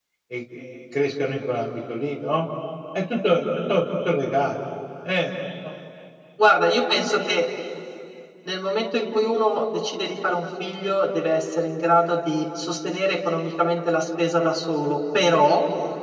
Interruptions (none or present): none